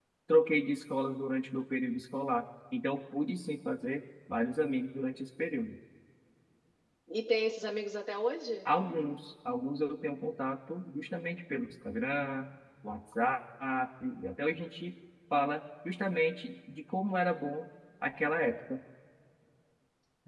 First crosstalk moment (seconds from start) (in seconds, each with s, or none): none